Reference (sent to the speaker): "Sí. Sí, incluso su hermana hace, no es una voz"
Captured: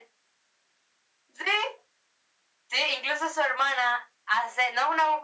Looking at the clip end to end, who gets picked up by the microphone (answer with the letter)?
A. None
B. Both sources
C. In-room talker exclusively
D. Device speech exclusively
D